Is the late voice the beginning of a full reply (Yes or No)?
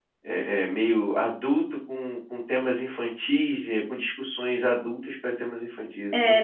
Yes